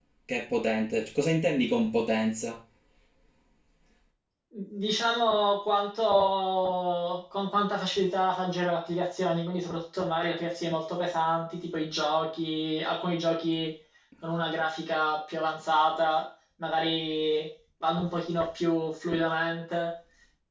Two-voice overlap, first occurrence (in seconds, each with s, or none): none